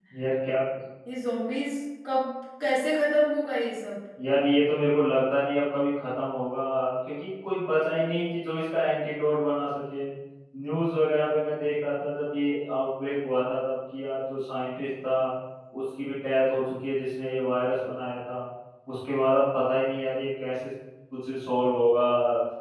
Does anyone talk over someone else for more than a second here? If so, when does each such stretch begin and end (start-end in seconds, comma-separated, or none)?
none